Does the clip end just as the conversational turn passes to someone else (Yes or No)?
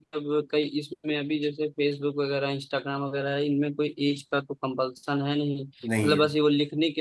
No